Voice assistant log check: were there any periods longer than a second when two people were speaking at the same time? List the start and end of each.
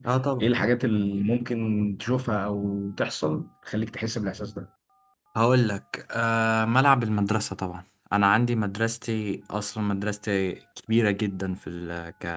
none

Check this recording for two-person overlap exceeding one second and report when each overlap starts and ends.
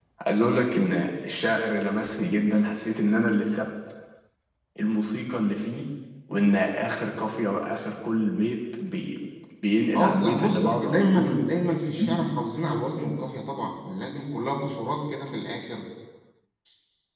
10.0-11.4

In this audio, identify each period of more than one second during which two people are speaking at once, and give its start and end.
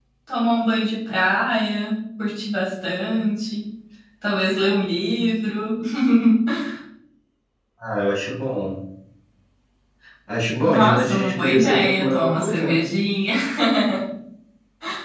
10.6-12.9

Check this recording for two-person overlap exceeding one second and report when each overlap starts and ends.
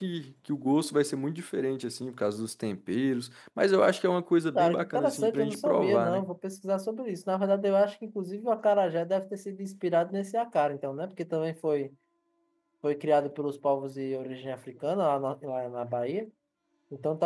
4.5-6.3

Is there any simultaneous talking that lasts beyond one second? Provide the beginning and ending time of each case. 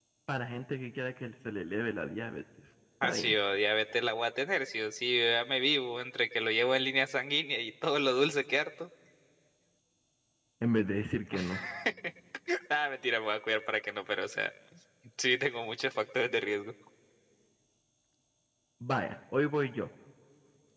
none

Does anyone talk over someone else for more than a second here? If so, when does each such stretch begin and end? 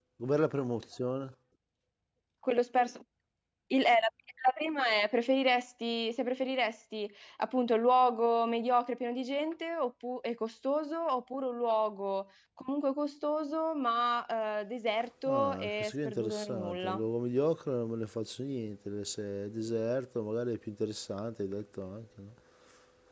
15.3-17.0

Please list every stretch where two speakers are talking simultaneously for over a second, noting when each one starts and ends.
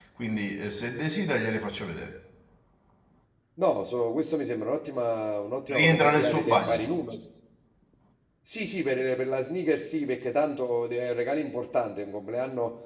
5.7-6.9

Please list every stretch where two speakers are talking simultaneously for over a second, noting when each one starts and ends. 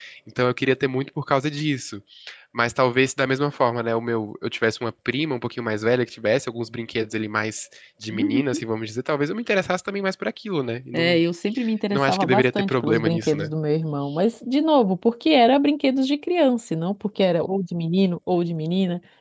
11.9-13.5

